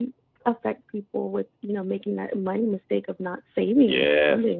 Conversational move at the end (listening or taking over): taking over